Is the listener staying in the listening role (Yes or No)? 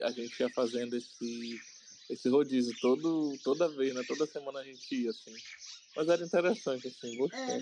No